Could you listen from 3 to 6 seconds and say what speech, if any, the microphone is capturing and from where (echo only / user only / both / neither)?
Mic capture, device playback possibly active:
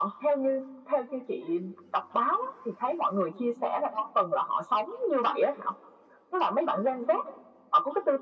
echo only